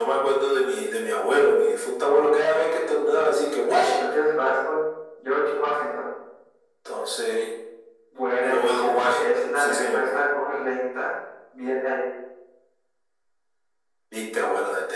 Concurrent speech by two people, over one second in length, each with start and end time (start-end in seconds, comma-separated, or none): 8.4-10.0